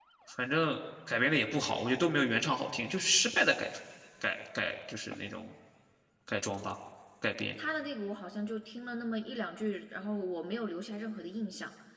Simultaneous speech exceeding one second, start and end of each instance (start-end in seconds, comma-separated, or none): none